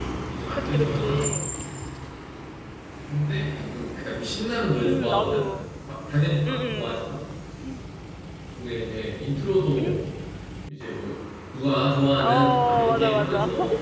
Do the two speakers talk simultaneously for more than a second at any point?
Yes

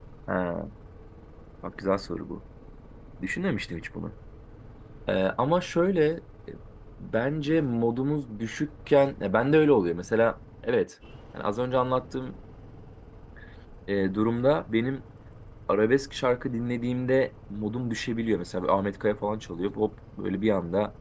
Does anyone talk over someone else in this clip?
No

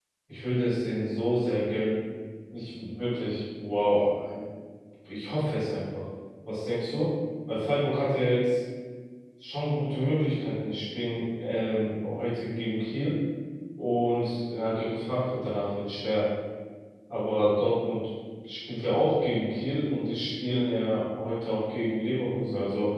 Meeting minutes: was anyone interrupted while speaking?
No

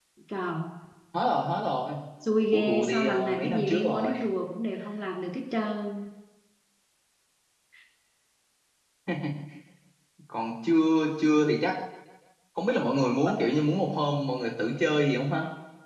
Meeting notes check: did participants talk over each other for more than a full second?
Yes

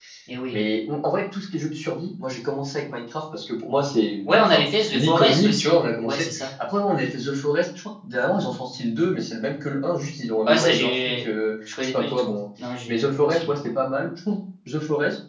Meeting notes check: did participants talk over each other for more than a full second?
Yes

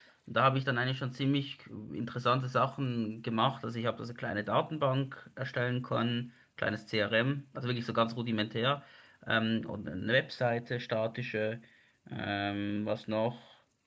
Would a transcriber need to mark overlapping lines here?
No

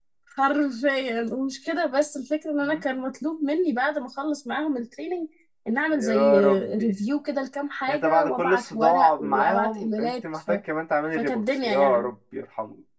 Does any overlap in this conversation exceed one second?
Yes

